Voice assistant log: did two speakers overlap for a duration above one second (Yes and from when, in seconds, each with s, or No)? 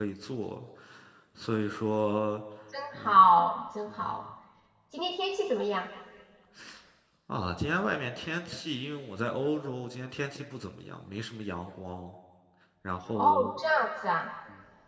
No